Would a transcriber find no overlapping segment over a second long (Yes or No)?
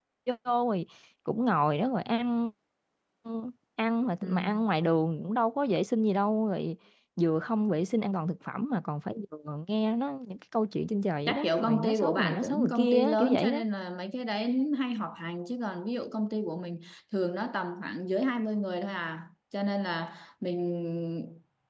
No